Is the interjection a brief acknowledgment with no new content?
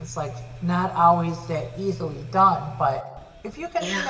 Yes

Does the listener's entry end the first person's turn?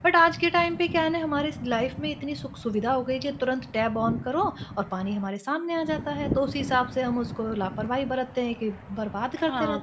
Yes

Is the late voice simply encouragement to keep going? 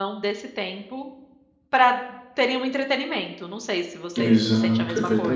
No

